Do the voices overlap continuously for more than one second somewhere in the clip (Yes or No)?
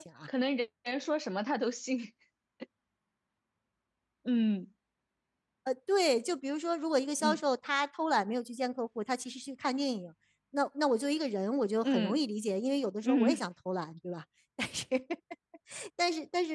No